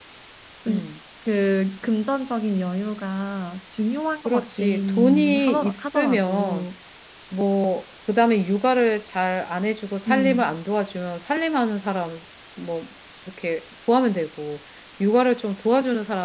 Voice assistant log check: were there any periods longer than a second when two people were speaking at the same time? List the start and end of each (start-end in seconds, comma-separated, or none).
4.2-6.7